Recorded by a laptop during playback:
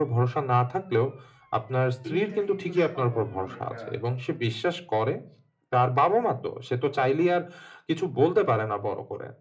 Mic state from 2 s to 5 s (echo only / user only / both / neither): both